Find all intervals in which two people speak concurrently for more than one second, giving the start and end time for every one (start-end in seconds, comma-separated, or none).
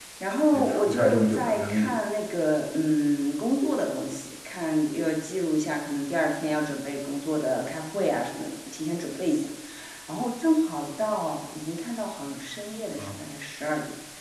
0.5-1.9